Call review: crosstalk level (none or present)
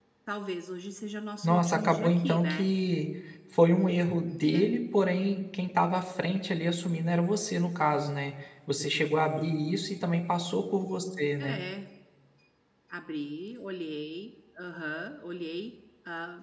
present